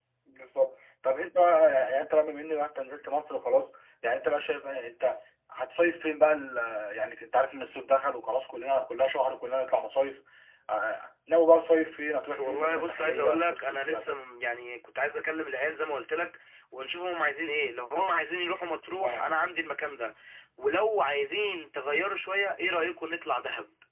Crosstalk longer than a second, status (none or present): present